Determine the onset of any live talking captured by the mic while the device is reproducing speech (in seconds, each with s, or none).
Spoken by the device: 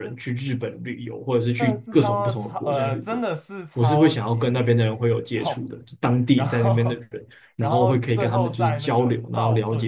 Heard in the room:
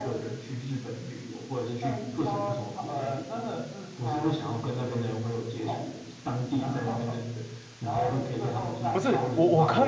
8.9 s